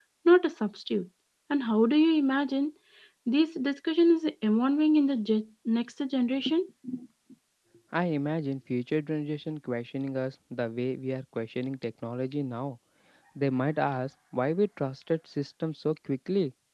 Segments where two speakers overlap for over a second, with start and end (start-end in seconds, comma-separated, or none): none